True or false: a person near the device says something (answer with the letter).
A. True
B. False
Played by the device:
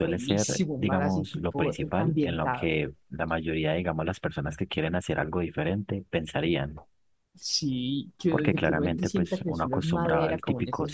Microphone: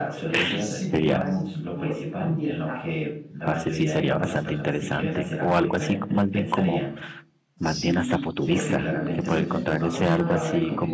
A